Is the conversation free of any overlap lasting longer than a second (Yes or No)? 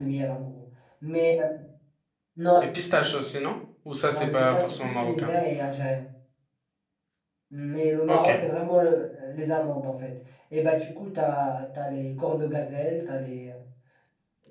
No